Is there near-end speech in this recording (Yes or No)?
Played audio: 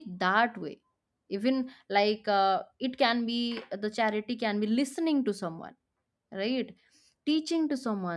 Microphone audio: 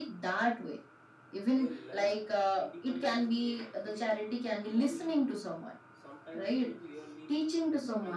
Yes